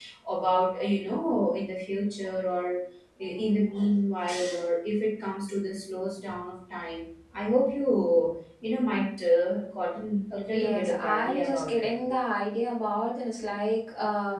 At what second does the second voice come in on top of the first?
10.5 s

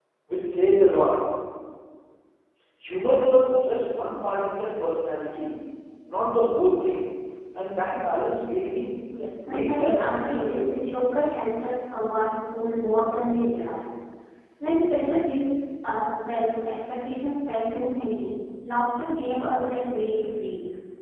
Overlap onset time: 9.4 s

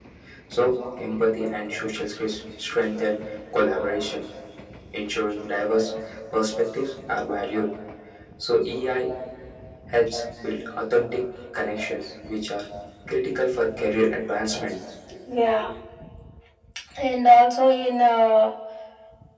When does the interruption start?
none

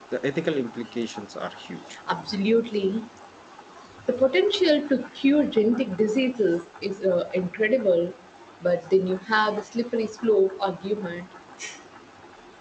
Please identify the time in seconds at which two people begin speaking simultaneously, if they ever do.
none

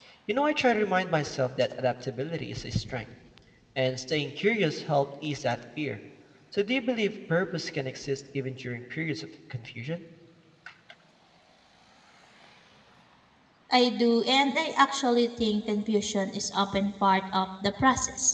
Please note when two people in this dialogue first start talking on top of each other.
none

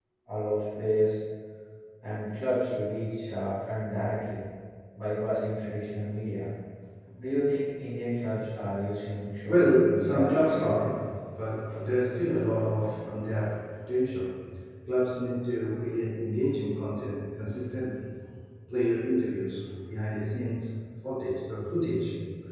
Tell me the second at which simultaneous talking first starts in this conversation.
9.5 s

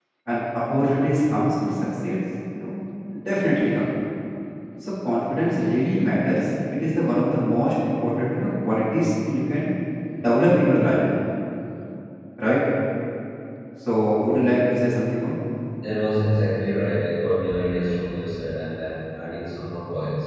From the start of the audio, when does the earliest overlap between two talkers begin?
none

